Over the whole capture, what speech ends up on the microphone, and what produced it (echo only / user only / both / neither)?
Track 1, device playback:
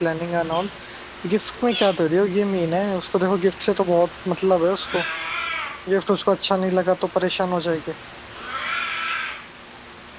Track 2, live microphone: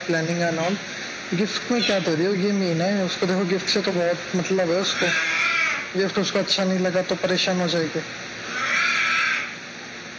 echo only